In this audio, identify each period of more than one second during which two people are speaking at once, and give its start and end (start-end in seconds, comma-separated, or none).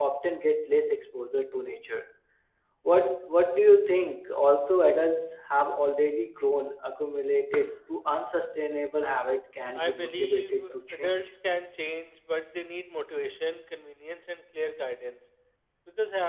9.8-11.2